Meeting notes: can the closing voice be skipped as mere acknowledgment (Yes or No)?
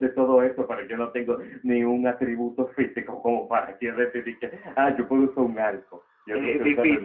No